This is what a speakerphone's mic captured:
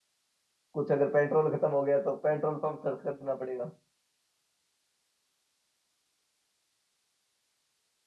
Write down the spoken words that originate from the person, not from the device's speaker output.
कुछ अगर पेट्रोल खत्म हो गया तो पेट्रोल पंप सर्च करना पड़ेगा

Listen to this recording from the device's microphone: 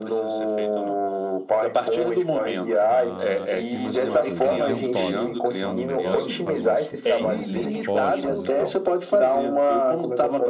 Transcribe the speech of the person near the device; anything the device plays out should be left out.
a, e tem mais uma coisa, a ventosa, que é um negócio que faz uma sucção assim nas costas e tal.

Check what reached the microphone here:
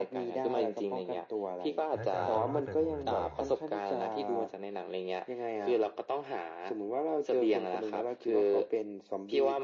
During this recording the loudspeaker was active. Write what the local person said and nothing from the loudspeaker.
แล้วจะเอาตัวรอดจากตรงนั้นยังไงครับ

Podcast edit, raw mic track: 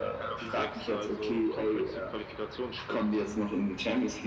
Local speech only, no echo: none

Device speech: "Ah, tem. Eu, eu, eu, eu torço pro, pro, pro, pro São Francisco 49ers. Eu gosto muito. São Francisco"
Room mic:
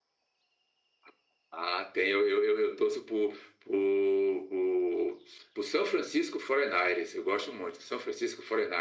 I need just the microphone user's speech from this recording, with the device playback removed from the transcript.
none

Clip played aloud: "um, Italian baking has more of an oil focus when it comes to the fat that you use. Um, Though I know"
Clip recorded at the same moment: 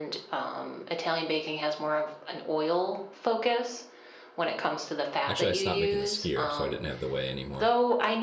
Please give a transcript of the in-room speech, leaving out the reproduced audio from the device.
Actually, I stopped making the skier, so I didn't have the whey anymore.

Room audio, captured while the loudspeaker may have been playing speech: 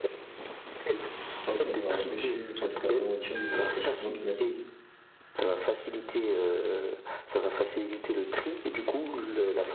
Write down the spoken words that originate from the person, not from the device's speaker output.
Enfin, ça va empêcher, enfin, en tout cas, ralentir le réchauffement climatique.

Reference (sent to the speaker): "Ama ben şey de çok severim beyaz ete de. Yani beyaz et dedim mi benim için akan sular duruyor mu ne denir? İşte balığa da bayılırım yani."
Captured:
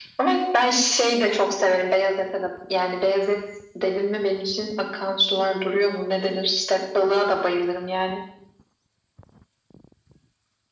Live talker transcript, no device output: none

